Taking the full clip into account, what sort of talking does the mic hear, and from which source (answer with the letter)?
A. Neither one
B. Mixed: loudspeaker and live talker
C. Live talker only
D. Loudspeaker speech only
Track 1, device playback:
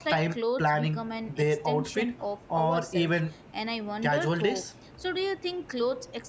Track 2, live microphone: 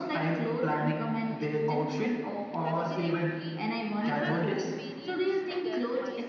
B